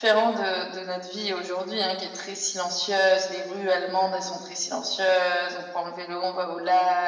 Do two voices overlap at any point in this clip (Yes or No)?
No